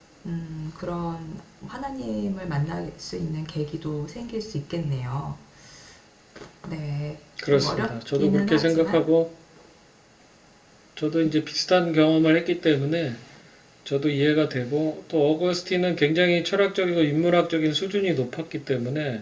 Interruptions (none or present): present